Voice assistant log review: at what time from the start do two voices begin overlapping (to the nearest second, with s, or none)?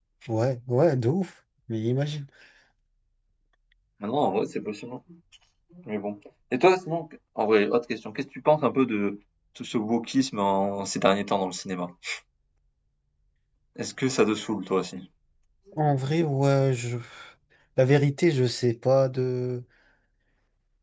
none